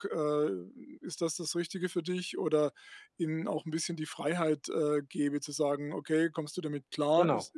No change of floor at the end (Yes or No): Yes